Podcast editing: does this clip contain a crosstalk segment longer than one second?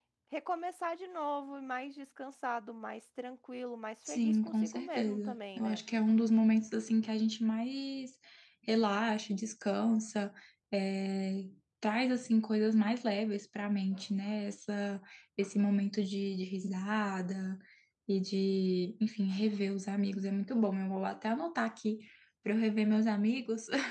Yes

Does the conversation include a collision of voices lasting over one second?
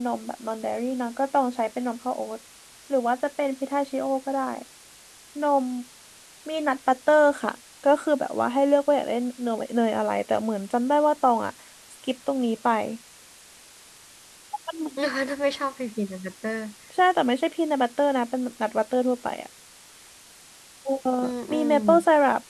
No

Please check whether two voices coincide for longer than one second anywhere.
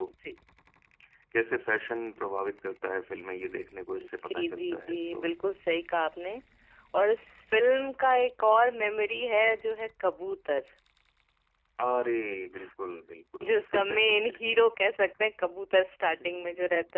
Yes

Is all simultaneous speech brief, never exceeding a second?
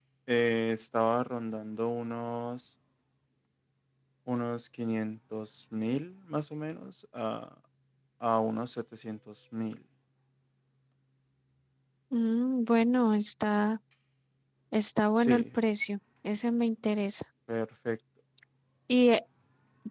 Yes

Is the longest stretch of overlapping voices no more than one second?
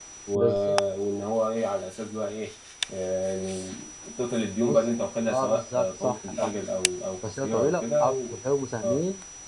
No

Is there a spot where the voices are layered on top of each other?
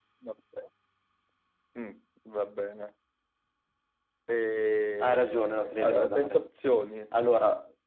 Yes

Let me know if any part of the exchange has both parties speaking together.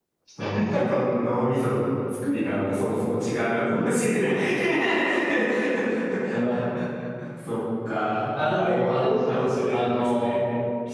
Yes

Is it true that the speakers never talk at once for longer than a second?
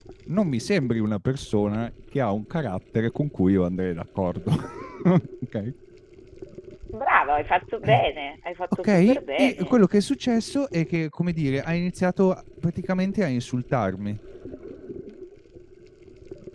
Yes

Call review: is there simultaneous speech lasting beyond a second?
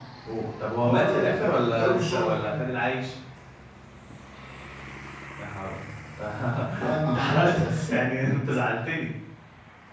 Yes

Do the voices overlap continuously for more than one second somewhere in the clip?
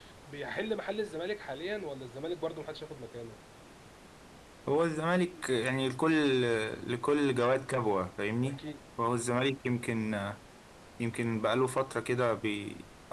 No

